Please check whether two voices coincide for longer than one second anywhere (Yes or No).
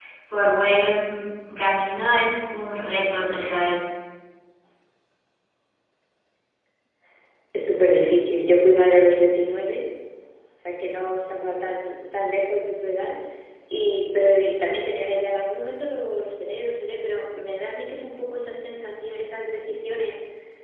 No